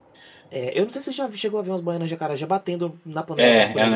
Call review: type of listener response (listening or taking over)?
taking over